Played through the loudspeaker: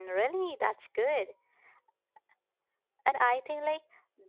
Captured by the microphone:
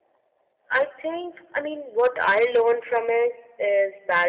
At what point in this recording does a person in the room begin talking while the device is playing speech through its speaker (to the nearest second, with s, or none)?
1 s